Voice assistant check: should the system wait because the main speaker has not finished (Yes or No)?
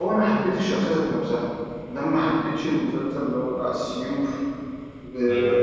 Yes